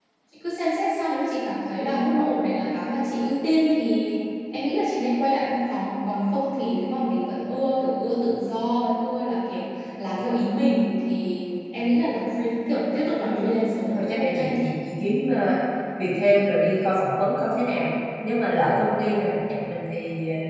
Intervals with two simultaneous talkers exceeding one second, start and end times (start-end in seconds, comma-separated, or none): 13.2-14.5